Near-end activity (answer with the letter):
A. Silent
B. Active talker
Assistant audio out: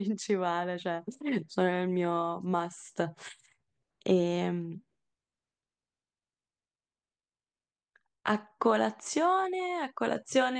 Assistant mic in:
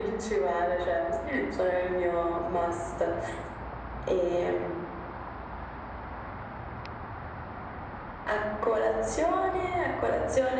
A